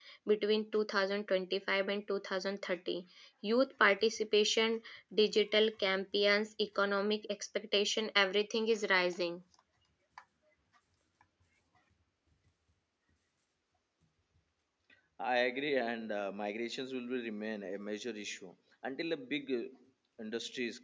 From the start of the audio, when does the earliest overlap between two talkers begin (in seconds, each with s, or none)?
none